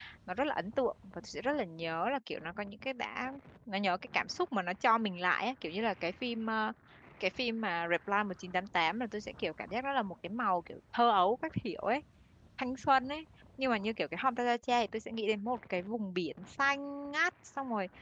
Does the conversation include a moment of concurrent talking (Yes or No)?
No